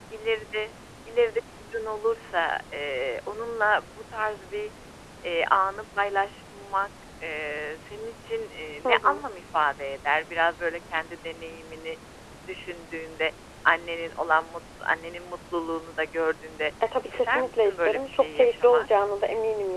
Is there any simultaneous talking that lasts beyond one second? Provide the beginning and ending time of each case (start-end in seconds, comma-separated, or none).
17.1-18.9